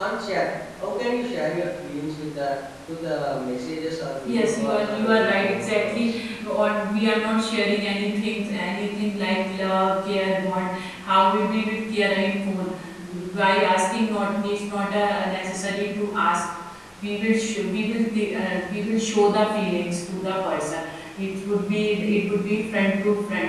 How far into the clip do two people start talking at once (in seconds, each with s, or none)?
4.2 s